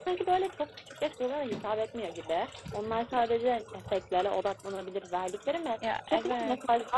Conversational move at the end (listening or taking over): listening